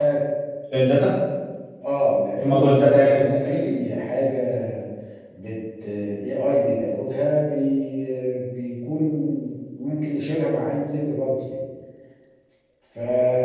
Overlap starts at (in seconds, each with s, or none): 2.4 s